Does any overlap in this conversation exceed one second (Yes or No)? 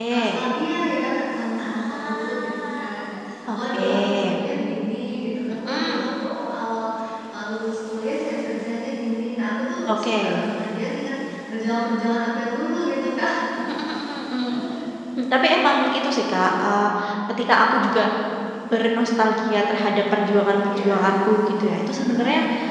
Yes